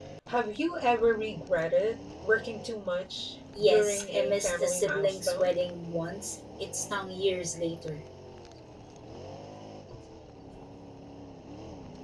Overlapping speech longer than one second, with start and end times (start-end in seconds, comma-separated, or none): 3.6-5.5